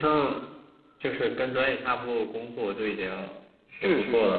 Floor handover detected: Yes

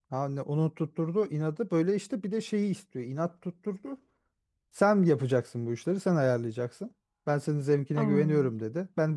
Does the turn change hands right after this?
No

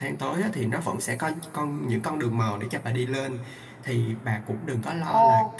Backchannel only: Yes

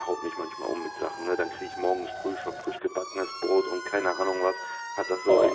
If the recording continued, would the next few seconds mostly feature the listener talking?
No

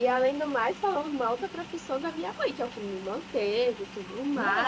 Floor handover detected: No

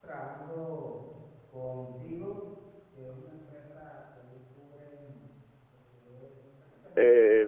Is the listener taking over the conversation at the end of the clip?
Yes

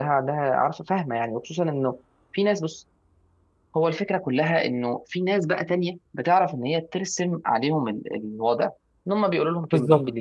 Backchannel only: No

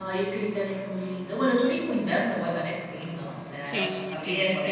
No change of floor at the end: No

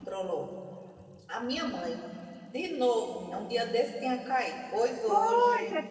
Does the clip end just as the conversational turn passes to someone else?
Yes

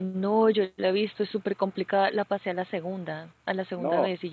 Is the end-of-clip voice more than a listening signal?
Yes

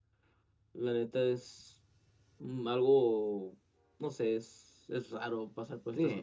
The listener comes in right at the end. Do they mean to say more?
Yes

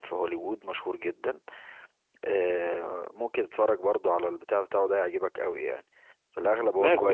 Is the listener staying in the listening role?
No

